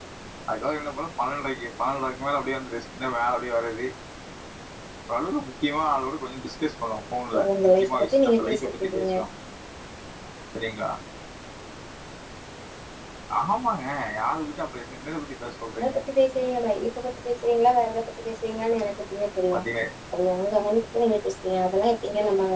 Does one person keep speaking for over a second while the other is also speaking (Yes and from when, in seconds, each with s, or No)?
Yes, from 7.3 s